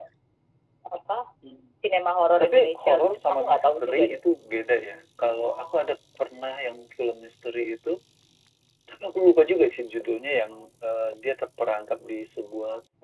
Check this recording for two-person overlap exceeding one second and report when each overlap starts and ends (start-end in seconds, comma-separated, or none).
2.4-4.2